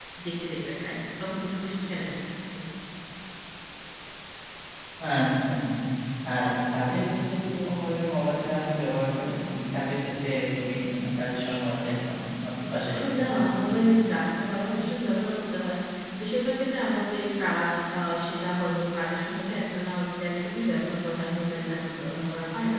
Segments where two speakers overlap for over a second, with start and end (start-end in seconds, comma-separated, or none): none